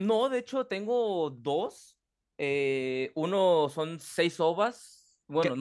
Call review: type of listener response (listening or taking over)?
taking over